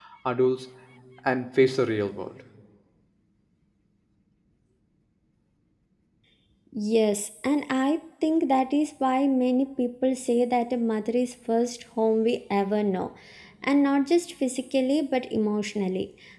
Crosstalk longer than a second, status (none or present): none